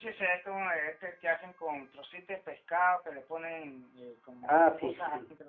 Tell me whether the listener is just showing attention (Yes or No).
No